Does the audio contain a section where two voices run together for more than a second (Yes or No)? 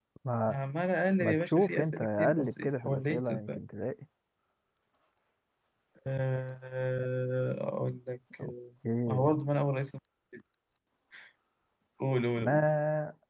Yes